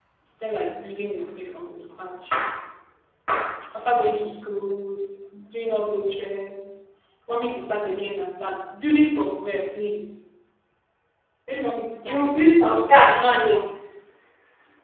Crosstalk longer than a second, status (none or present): present